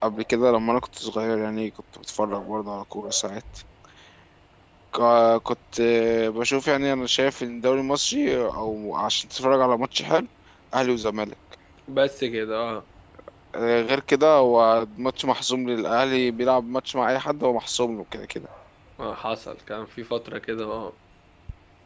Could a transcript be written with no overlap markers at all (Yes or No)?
Yes